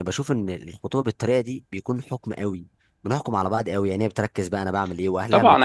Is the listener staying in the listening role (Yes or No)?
No